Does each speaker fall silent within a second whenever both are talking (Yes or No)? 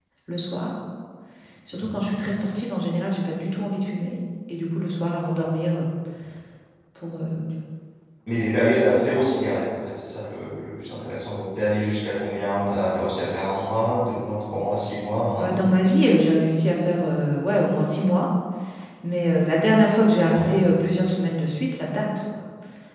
Yes